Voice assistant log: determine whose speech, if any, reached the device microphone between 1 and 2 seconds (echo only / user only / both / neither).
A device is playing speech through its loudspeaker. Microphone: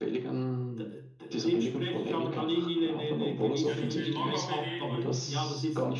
echo only